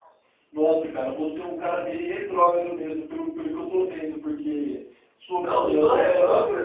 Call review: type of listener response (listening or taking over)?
taking over